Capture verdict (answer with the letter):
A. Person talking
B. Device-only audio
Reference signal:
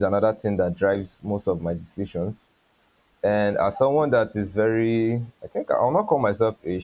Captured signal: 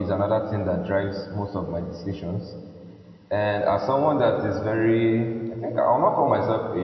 B